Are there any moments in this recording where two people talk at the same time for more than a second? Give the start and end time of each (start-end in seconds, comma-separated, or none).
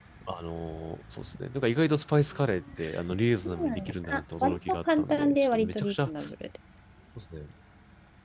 3.4-6.1